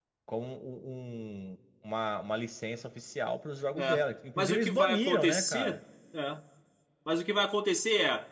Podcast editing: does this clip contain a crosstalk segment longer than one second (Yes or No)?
Yes